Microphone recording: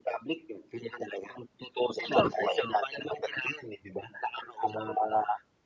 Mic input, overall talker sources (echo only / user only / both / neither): echo only